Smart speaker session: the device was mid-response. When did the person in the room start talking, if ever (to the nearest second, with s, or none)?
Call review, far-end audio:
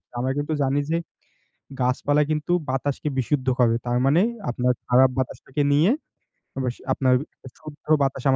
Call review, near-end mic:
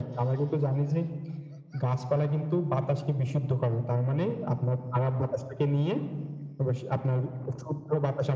none